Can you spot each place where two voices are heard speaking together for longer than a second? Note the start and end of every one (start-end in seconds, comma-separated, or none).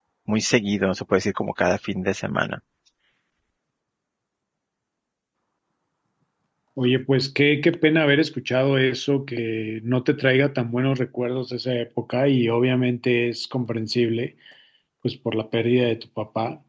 none